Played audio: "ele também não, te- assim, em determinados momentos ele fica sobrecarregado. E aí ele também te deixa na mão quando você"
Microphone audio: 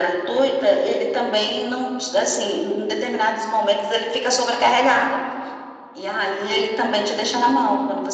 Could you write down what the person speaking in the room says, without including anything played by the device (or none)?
none